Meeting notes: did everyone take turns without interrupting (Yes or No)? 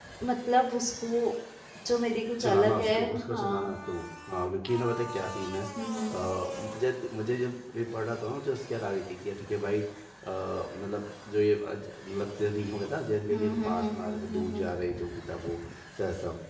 No